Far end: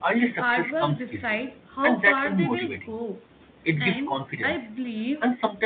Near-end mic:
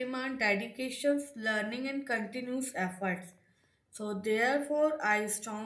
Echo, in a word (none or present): none